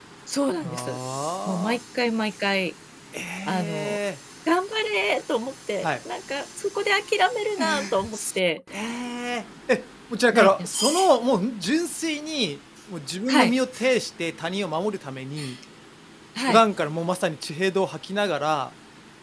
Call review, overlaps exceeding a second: none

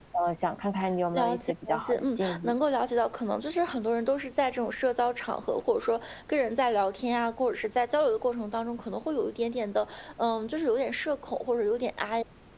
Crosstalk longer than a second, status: present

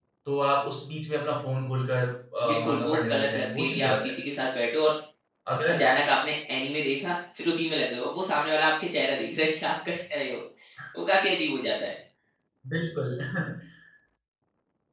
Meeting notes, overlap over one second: present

